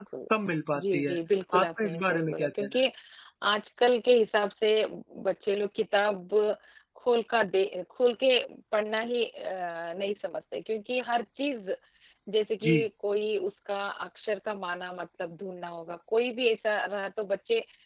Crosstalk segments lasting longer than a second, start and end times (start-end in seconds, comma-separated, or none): 1.6-2.8